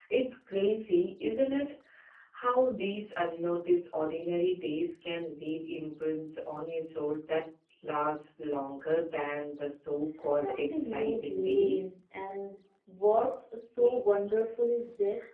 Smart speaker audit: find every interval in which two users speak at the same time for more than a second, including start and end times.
10.5-11.9

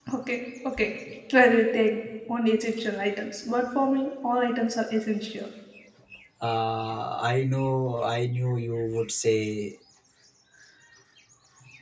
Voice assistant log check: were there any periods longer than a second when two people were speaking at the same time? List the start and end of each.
none

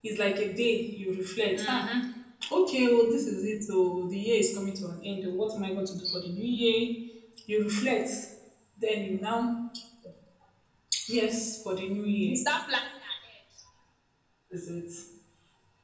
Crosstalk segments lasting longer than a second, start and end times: none

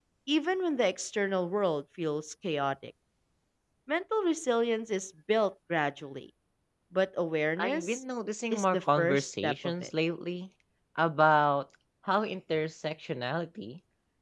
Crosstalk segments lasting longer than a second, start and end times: 8.5-9.9

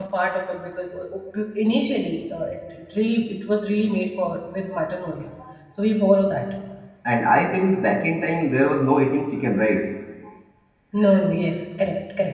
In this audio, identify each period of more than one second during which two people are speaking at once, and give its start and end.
none

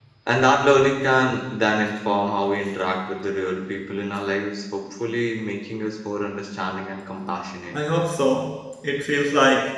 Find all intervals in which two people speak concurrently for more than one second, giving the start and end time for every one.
none

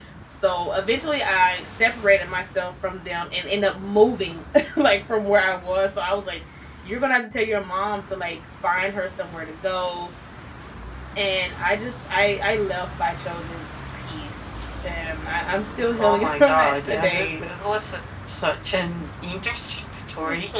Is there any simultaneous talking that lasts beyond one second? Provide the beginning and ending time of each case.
16.0-17.4

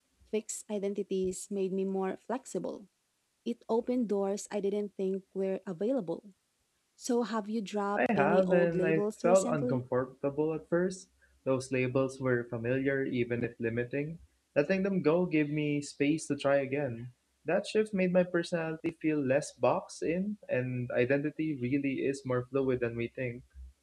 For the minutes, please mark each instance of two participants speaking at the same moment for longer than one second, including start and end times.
8.0-9.8

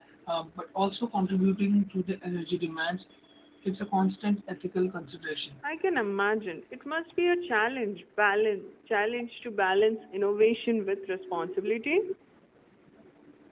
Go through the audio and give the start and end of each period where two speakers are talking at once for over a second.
none

